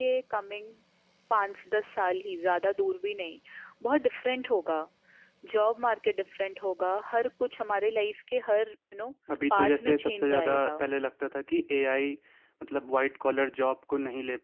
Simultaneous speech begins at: 9.5 s

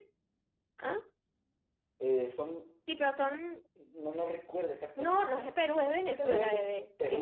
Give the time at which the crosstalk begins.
5.0 s

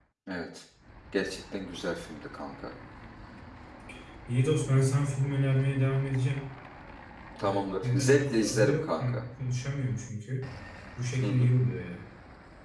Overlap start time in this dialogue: 7.4 s

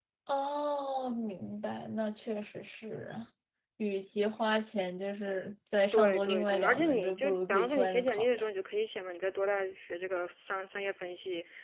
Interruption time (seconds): 5.9 s

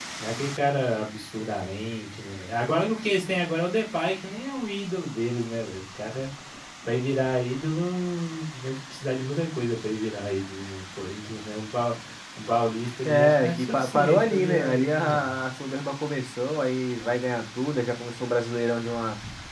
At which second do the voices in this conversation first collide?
13.0 s

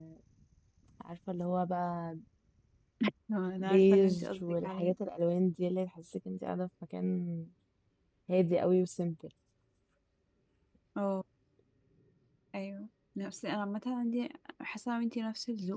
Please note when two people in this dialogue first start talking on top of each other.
3.6 s

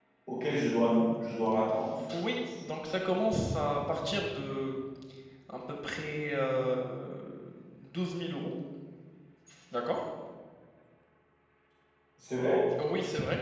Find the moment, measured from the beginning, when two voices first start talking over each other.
none

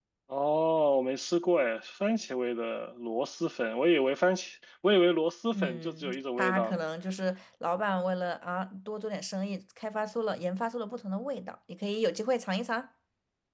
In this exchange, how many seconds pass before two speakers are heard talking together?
5.5 s

